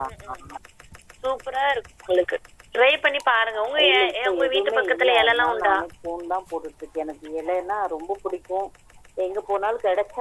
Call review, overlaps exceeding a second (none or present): present